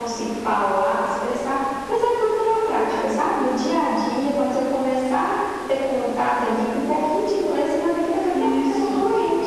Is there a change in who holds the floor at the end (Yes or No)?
Yes